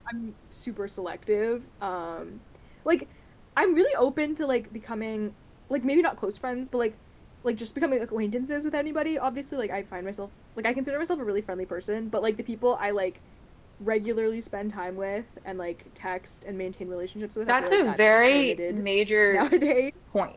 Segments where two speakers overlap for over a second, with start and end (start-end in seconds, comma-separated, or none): 17.5-18.8